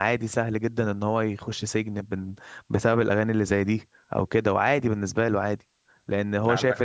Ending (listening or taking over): listening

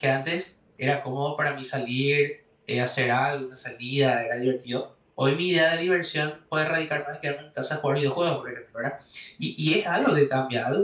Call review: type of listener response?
listening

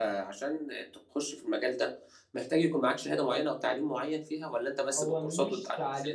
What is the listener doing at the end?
taking over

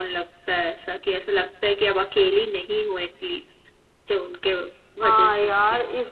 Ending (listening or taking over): taking over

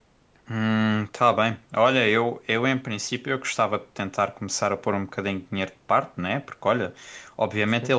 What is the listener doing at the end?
listening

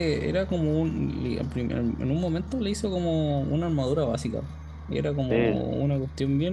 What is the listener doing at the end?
listening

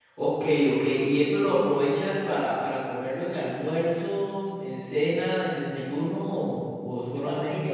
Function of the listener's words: taking over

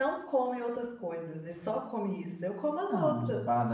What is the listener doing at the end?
taking over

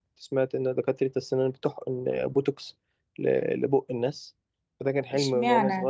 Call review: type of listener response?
taking over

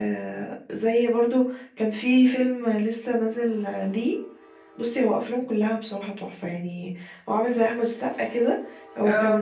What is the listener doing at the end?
listening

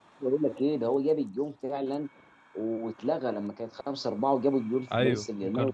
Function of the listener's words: taking over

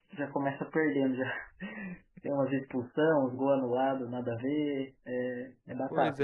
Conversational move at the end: taking over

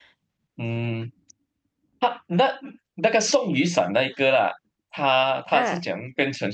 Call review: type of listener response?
listening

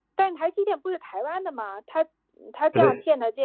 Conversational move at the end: listening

